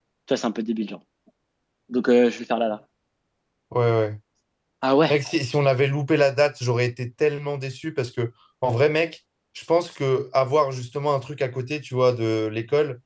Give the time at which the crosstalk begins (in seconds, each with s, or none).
none